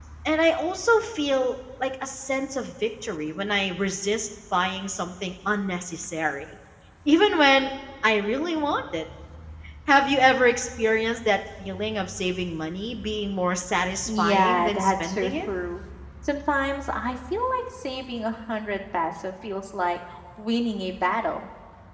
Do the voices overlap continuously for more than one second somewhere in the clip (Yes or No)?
Yes